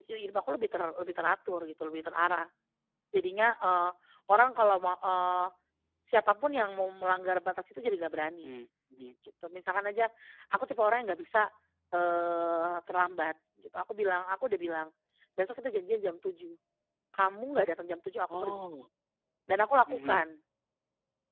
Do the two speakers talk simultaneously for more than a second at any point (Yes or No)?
No